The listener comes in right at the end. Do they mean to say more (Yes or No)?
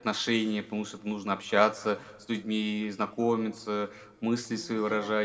No